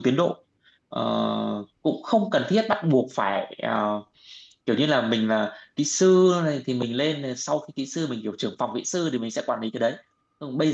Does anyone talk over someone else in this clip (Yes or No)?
No